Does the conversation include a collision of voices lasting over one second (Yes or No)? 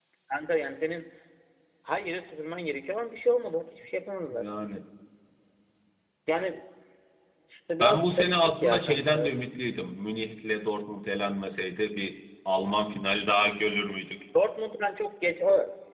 Yes